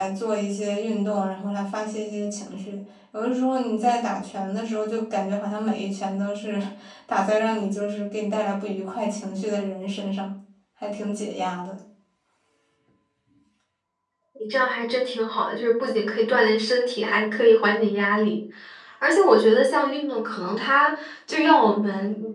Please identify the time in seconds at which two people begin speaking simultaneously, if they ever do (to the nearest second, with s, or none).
none